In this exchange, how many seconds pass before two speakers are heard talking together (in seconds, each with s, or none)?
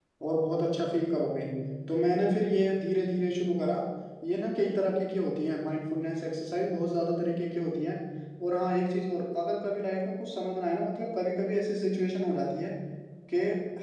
none